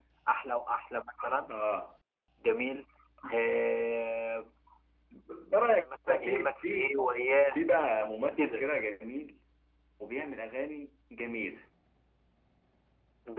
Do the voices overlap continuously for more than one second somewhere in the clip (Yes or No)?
Yes